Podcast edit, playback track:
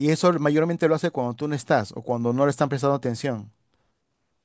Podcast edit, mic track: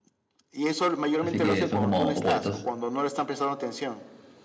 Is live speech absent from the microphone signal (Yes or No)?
No